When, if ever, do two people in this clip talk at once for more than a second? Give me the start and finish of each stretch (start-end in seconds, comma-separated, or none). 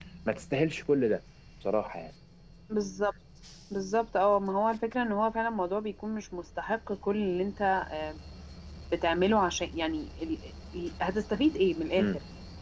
none